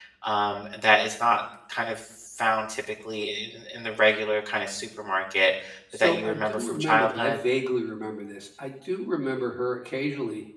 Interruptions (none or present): present